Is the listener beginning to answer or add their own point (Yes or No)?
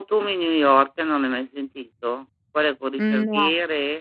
No